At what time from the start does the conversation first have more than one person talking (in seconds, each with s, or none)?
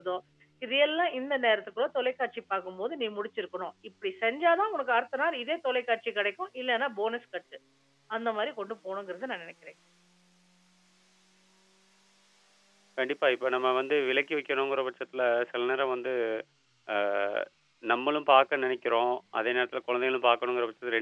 none